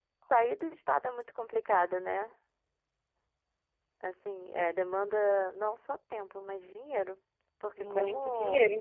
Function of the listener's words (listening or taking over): taking over